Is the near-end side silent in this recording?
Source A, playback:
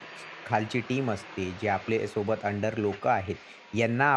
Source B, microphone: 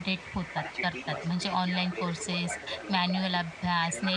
No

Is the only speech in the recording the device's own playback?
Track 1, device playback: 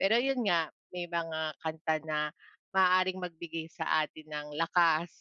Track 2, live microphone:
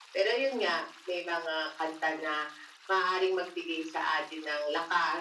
Yes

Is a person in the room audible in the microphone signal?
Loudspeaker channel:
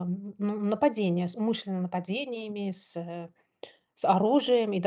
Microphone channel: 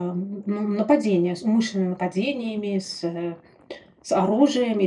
No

